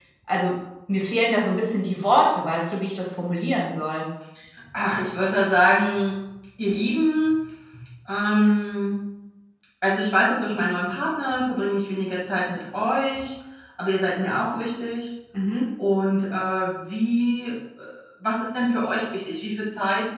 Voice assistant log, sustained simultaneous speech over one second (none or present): none